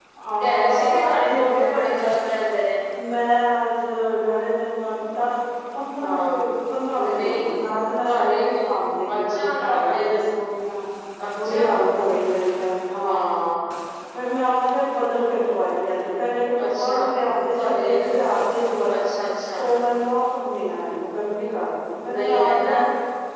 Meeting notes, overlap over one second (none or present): present